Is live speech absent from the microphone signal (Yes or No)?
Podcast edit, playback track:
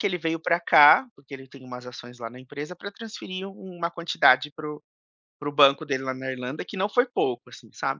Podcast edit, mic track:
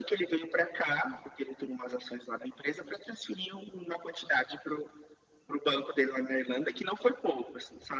Yes